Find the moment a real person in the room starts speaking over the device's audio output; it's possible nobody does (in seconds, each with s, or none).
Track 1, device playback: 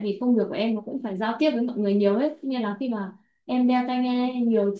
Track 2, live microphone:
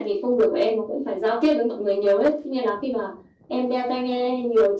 none